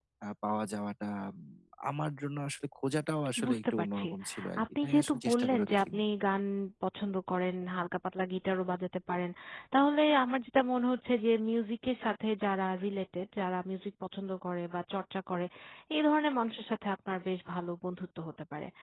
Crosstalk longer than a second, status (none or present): present